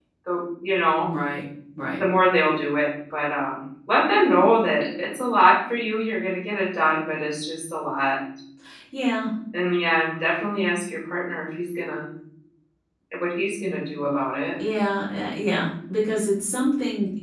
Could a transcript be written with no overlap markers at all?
Yes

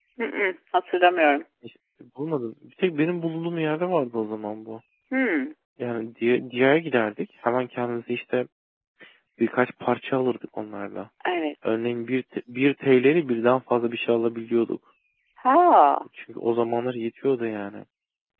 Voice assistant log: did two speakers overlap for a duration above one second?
No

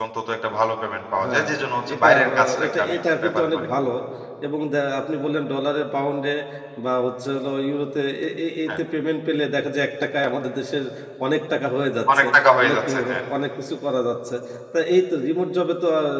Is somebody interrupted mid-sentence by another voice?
Yes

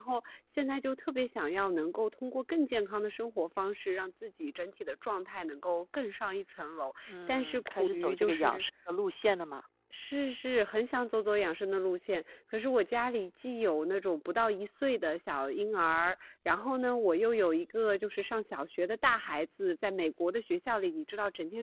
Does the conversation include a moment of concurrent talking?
Yes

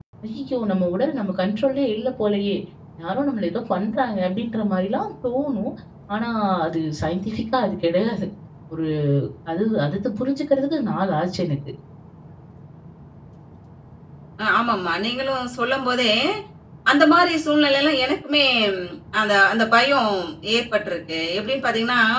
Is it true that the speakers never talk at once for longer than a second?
Yes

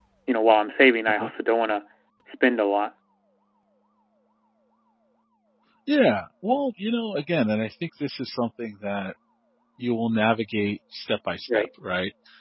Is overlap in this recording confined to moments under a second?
Yes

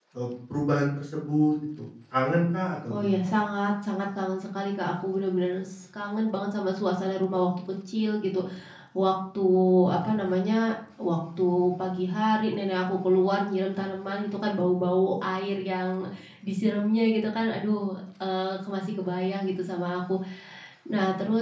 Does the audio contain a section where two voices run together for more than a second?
No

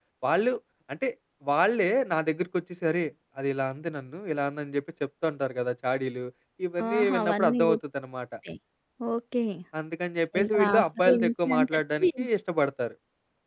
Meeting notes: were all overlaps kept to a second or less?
No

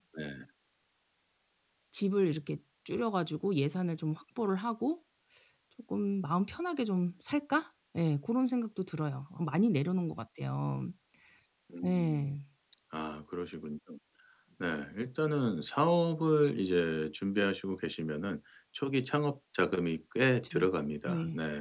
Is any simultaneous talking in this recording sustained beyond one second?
No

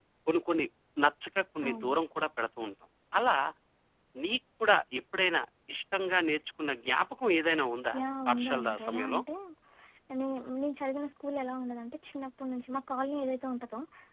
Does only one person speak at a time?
No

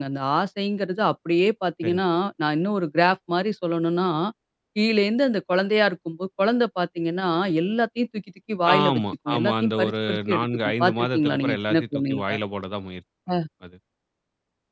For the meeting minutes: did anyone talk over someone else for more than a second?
Yes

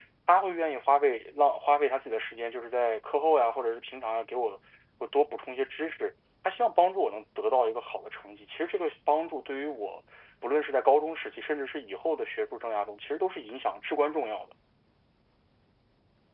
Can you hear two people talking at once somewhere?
No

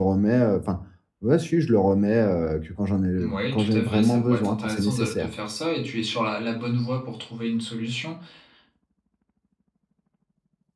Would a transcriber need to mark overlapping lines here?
Yes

